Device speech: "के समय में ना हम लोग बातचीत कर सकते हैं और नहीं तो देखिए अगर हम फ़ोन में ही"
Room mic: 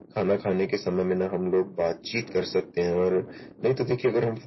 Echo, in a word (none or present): present